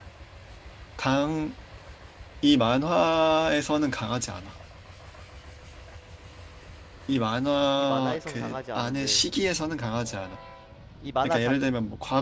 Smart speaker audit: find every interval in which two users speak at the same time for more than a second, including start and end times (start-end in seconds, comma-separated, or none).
7.8-9.2